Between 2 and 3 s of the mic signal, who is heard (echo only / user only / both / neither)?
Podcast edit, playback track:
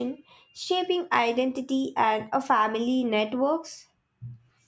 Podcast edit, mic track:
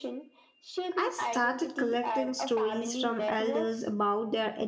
both